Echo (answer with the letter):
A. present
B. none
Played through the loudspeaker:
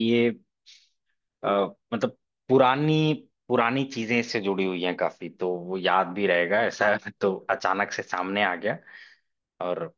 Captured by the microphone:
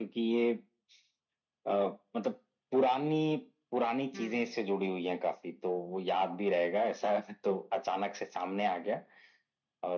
A